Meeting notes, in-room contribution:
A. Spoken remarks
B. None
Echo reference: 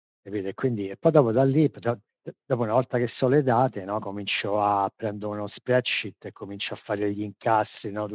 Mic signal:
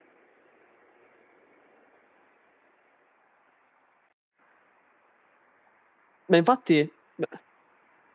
A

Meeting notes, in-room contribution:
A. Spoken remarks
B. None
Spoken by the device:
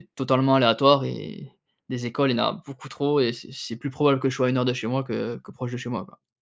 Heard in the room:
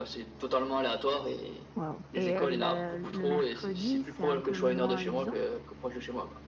A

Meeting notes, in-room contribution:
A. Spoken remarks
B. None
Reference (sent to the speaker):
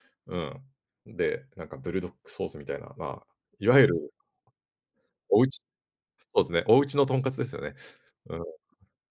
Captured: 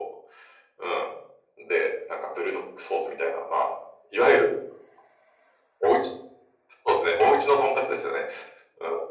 B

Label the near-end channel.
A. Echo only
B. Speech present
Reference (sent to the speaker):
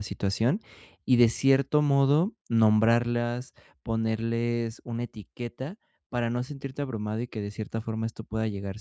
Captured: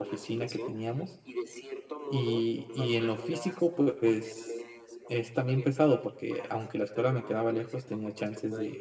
B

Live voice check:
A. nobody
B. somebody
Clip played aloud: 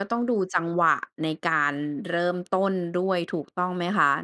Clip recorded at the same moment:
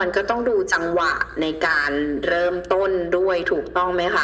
A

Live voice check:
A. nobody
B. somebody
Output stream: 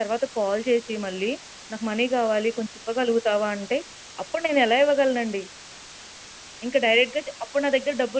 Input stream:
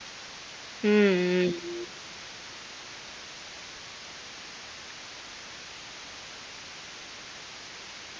B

